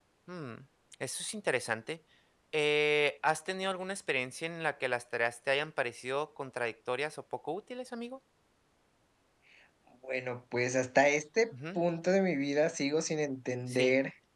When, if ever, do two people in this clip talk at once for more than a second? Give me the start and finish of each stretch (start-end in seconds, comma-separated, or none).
none